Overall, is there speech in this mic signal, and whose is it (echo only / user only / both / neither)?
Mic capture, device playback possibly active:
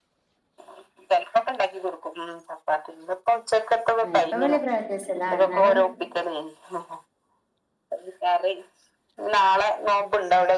both